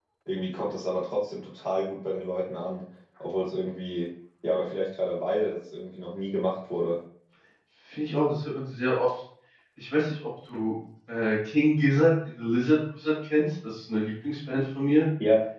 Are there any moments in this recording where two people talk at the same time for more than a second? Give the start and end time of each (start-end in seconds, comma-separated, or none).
none